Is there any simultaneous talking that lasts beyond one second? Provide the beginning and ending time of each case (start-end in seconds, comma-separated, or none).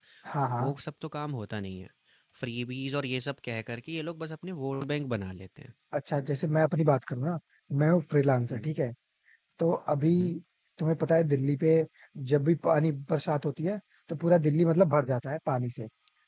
none